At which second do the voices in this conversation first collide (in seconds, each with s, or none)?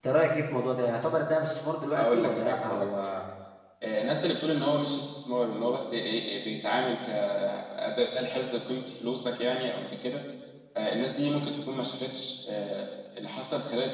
2.0 s